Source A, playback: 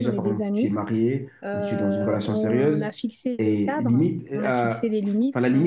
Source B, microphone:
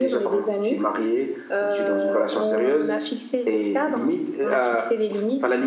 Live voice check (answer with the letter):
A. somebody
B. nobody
B